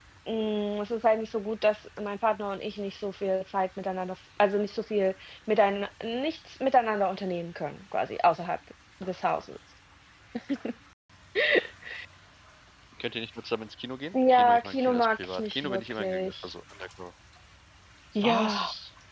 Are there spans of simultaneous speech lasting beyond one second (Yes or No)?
Yes